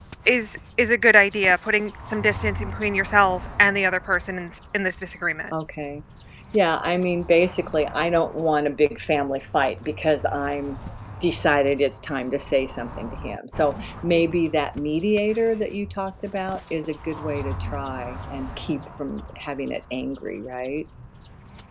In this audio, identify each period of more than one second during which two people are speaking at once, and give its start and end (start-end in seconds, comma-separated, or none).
none